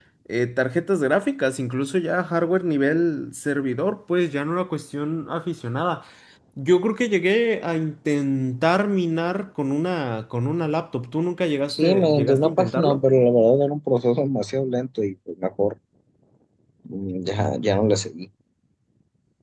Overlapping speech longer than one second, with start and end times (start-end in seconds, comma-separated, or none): 11.7-13.0